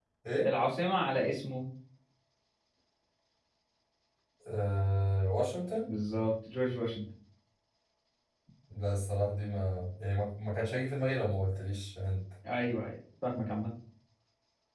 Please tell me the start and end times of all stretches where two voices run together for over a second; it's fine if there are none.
none

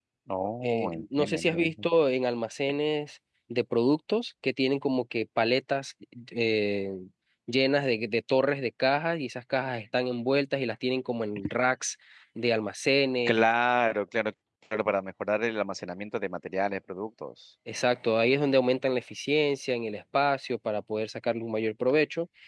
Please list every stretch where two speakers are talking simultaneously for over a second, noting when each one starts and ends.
0.6-1.9

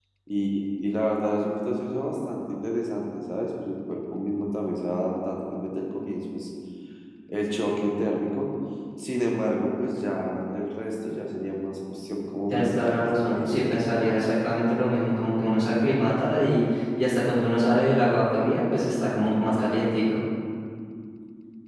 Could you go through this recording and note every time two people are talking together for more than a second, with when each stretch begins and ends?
12.5-13.8

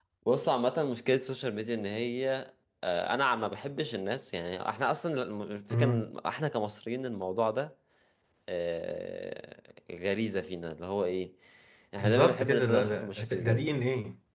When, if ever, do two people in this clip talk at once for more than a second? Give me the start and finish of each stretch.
12.0-13.7

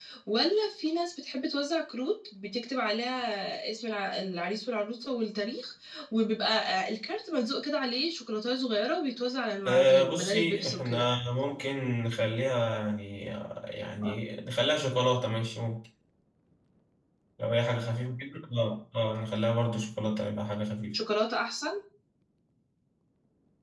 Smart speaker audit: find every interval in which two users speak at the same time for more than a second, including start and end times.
9.6-11.0

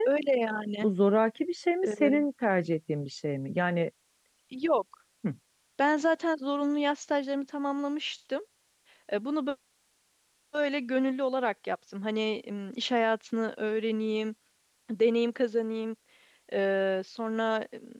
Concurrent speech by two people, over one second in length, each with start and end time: none

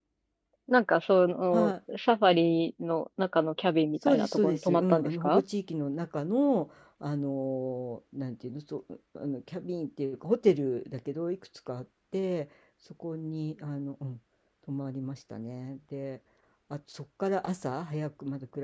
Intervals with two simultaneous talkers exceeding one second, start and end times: 4.1-5.4

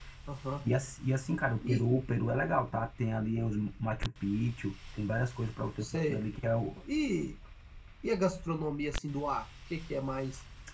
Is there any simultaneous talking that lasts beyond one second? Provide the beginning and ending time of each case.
none

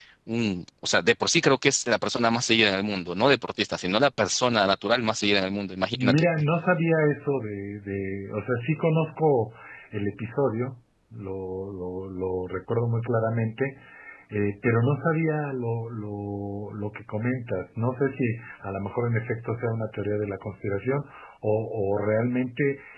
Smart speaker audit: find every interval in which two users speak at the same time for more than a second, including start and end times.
none

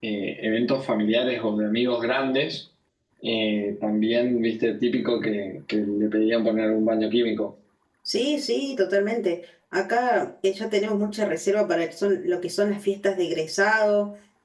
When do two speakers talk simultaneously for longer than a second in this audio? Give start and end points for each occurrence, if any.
none

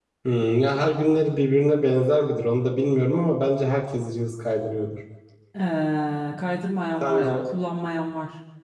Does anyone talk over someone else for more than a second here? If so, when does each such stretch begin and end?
none

